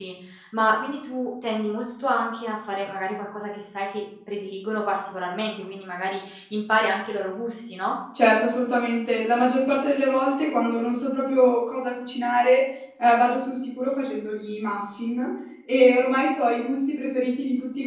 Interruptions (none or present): none